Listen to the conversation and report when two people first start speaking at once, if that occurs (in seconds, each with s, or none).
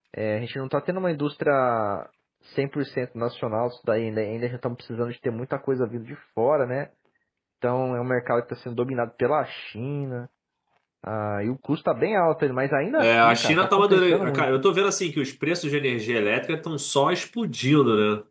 13.0 s